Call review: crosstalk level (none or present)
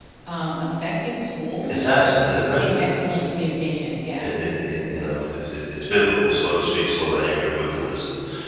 none